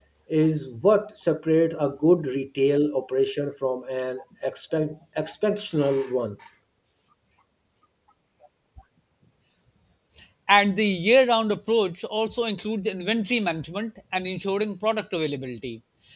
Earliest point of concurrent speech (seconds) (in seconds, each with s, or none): none